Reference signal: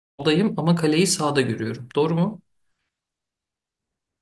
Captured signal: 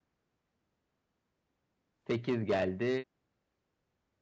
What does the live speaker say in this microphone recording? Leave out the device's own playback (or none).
8 geldi.